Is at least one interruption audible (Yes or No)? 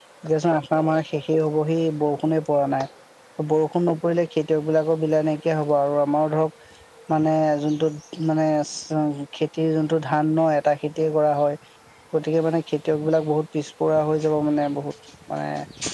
No